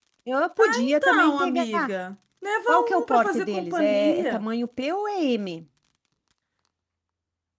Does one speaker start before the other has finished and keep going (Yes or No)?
Yes